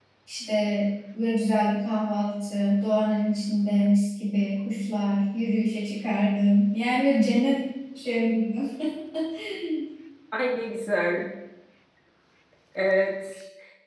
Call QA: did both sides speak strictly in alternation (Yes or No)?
Yes